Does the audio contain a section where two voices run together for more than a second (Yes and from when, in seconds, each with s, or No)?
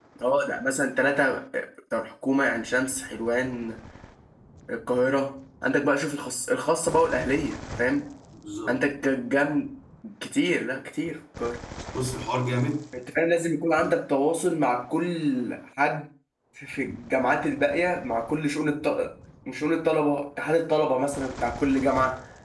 No